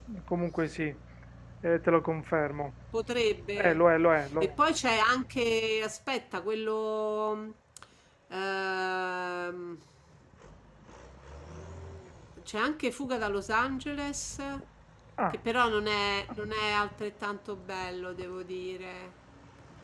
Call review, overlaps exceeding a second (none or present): none